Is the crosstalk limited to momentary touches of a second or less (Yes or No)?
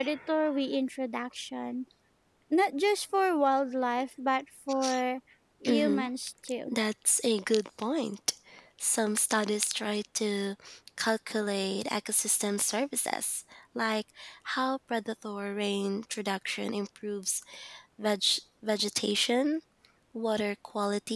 Yes